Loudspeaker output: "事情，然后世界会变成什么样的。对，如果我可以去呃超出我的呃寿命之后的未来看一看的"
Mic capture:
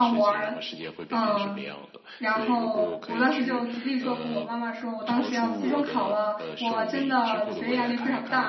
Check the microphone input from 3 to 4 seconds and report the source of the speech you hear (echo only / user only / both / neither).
both